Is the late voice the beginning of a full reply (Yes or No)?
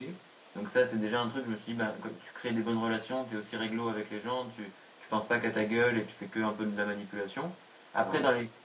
No